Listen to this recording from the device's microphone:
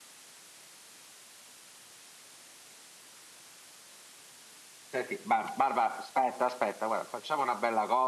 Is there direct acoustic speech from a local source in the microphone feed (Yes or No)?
Yes